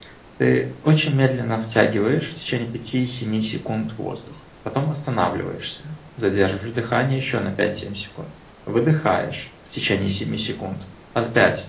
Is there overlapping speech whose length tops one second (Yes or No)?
No